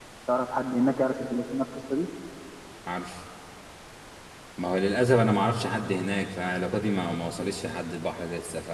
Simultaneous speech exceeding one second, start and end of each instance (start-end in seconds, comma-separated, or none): none